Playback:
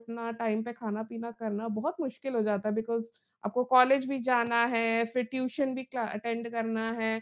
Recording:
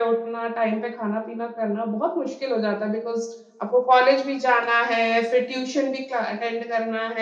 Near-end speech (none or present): none